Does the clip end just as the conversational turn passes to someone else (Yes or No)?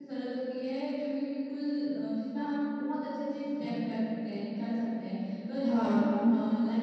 No